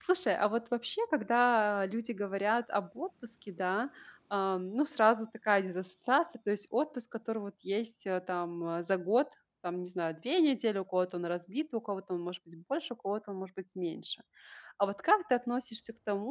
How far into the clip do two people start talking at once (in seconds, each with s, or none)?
none